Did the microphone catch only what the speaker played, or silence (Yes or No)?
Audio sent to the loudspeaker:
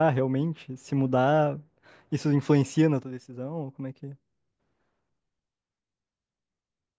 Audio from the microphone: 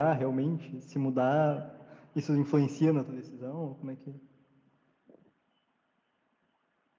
Yes